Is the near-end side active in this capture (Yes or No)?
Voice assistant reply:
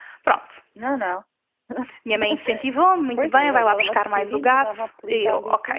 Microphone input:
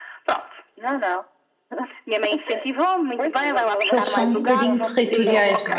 Yes